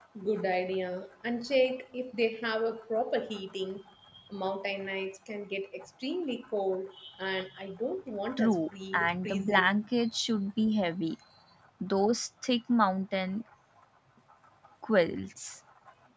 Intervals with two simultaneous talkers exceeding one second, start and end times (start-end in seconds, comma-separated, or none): 8.4-9.8